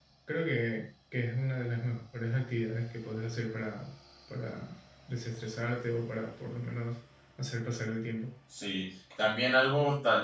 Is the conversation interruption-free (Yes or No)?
Yes